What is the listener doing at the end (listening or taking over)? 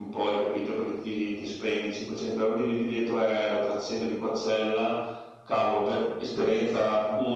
listening